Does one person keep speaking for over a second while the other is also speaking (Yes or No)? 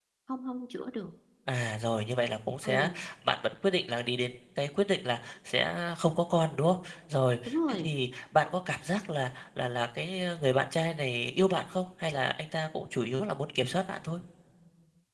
No